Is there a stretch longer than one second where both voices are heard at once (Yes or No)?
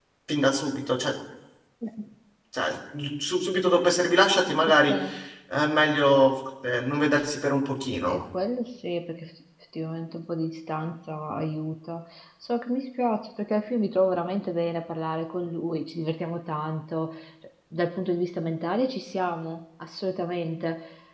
No